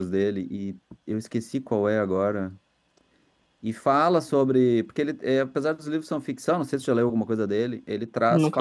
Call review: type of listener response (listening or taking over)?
listening